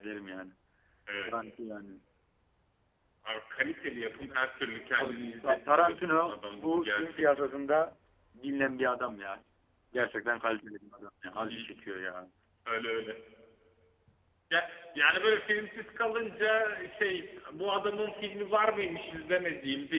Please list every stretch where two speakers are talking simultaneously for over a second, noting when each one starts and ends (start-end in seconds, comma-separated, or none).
5.0-7.5